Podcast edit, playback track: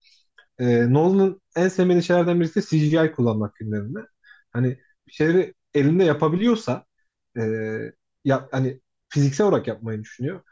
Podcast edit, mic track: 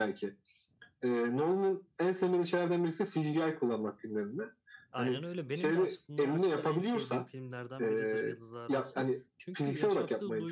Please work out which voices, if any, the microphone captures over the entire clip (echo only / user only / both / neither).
both